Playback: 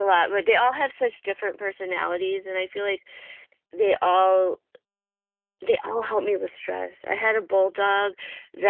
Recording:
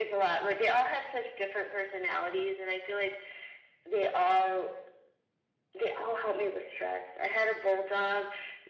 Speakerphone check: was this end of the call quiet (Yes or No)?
Yes